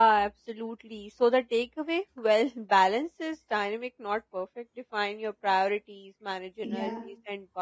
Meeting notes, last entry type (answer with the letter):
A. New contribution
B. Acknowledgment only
B